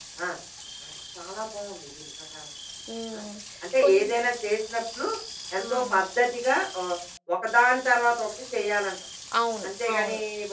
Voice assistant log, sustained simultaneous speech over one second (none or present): none